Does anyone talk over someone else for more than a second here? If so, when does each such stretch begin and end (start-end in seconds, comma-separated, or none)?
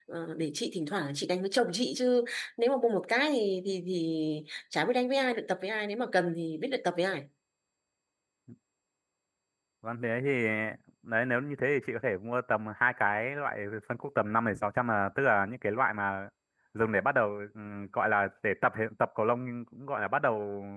none